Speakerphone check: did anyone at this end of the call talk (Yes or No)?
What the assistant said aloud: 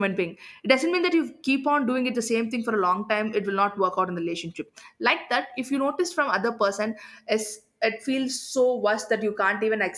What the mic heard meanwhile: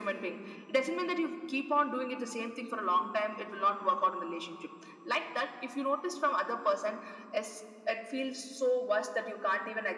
No